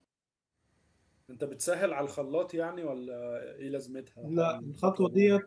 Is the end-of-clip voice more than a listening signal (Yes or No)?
Yes